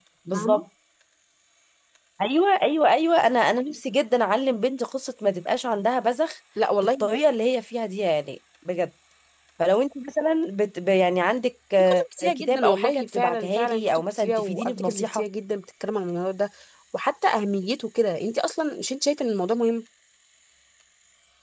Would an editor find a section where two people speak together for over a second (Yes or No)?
Yes